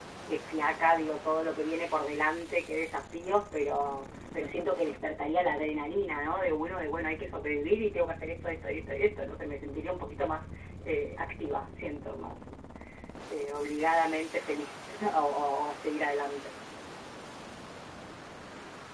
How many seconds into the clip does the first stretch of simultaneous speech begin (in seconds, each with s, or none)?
none